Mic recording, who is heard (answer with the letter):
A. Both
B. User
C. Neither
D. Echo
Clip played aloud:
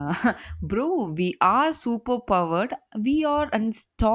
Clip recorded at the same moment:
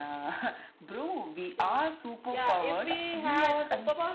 A